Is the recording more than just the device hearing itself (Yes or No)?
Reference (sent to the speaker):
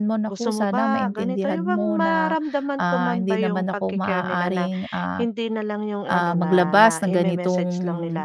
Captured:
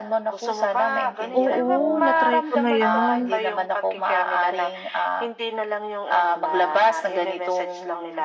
Yes